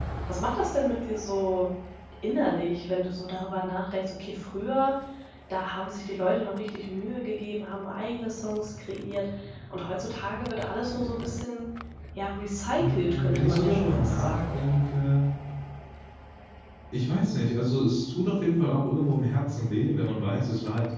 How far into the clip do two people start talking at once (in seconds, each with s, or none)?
12.8 s